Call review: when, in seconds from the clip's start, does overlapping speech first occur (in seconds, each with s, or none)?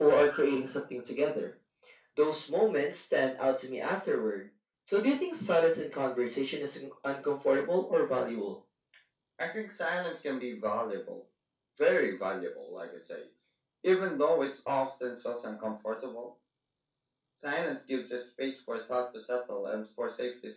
none